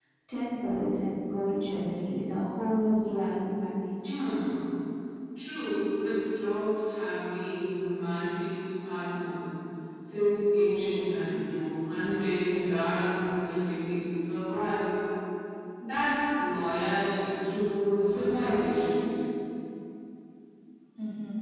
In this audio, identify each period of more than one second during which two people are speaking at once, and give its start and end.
none

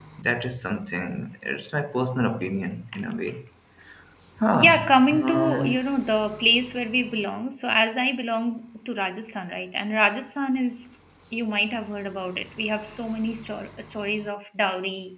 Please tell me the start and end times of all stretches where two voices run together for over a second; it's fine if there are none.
4.5-5.8

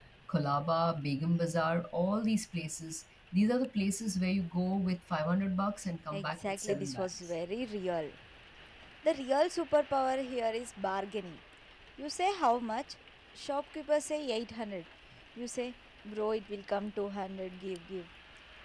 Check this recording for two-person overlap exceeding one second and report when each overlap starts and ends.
6.1-7.3

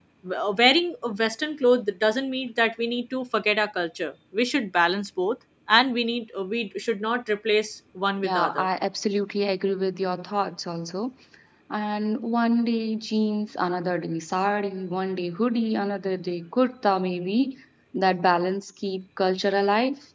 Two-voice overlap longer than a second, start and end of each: none

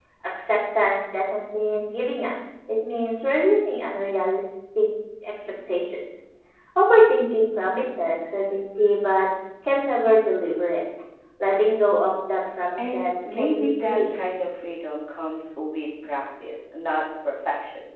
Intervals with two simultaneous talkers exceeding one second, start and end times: 12.8-14.2

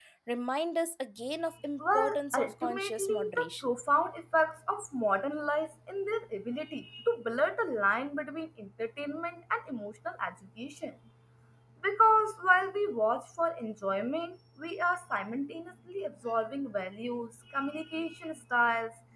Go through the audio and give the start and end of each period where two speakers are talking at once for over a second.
1.8-3.7

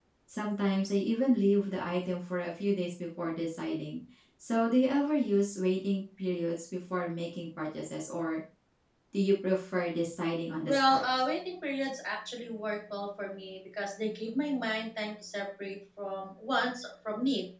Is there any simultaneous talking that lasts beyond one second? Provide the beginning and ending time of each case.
none

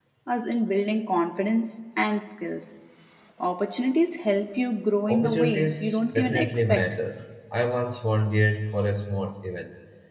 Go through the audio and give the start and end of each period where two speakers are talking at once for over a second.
5.1-6.9

